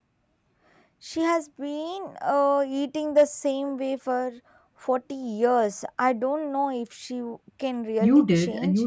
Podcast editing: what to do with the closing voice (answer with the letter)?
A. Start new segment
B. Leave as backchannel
A